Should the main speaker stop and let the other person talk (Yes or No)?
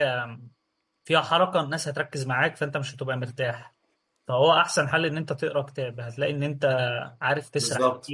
No